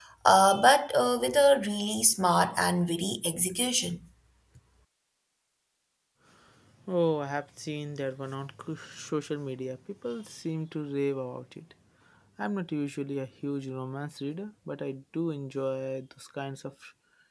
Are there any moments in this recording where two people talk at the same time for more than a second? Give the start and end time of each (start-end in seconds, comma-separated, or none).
none